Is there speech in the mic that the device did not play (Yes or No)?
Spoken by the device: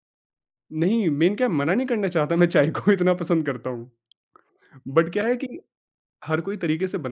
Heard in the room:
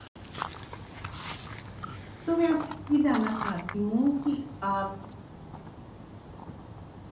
Yes